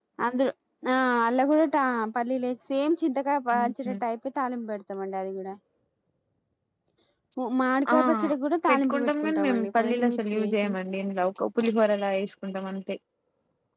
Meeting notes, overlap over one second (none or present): present